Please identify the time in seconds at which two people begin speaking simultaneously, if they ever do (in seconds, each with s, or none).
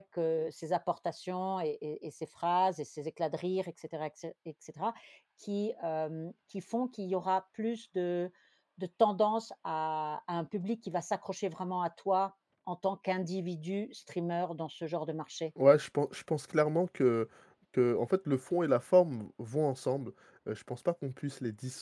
none